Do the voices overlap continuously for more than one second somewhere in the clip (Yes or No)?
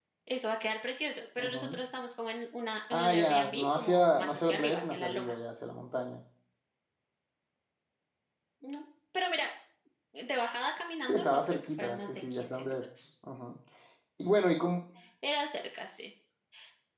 Yes